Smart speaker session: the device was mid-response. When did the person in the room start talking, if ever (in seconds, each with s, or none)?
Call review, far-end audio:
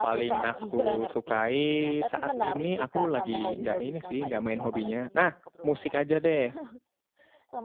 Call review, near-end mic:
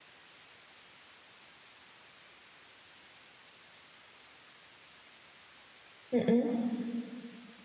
6.1 s